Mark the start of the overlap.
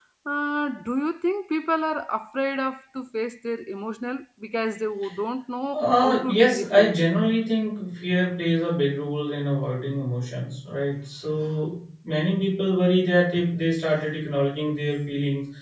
6 s

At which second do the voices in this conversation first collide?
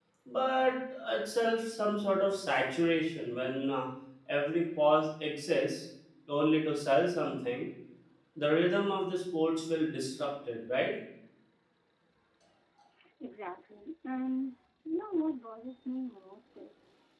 none

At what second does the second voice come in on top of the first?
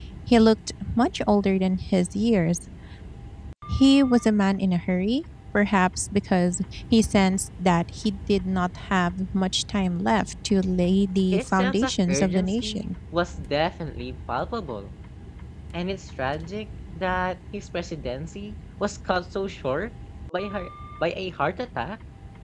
11 s

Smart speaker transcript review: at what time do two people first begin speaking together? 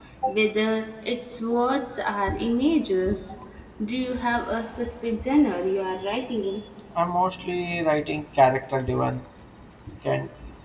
none

